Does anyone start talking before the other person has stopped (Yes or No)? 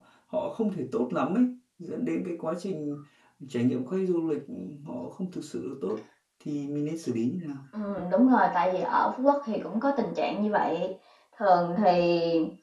No